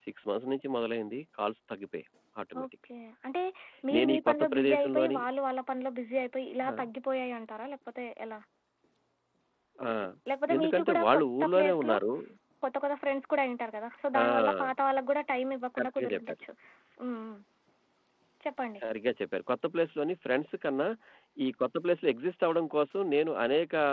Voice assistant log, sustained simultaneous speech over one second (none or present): present